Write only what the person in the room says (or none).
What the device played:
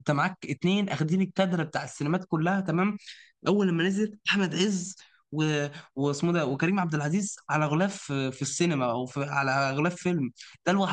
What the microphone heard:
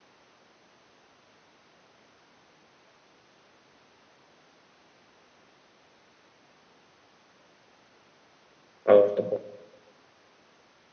اه افتكرت